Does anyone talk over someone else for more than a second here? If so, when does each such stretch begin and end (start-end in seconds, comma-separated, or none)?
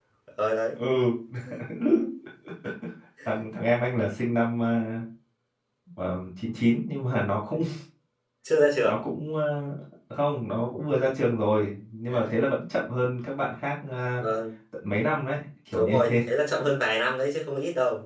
none